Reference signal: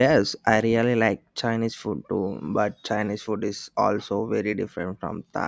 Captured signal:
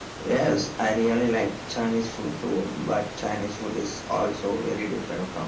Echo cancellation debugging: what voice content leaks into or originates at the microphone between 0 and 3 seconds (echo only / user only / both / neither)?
echo only